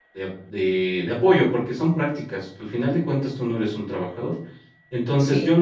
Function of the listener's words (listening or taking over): listening